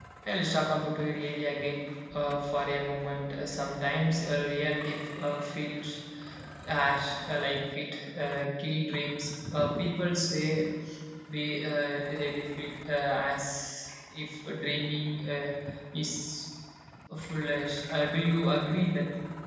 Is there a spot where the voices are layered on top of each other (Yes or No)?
No